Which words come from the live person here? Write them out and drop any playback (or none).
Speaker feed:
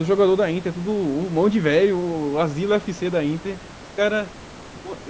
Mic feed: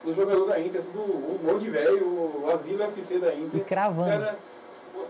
E cravando.